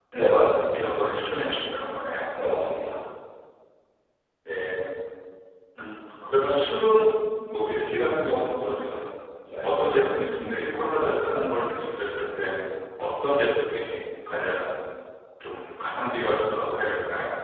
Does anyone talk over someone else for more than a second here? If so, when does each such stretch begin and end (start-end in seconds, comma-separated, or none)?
none